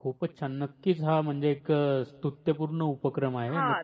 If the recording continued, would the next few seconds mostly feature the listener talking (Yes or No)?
Yes